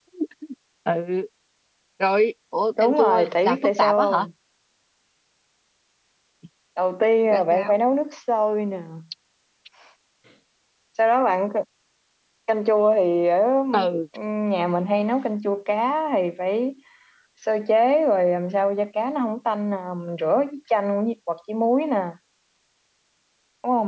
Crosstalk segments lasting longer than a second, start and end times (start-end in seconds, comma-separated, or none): 2.8-4.2